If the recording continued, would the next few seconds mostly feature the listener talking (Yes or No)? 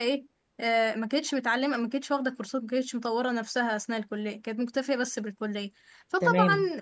No